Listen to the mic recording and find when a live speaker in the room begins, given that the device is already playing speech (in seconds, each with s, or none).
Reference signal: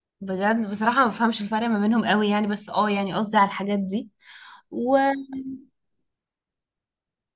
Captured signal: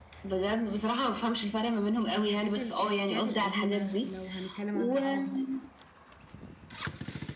2.1 s